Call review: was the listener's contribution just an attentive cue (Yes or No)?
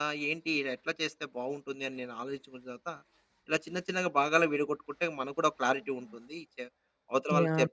Yes